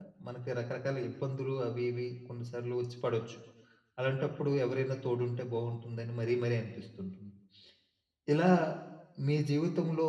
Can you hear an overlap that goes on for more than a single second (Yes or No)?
No